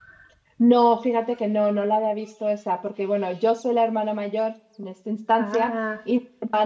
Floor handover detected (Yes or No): No